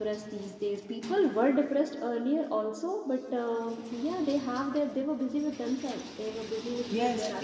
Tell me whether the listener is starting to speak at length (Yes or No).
Yes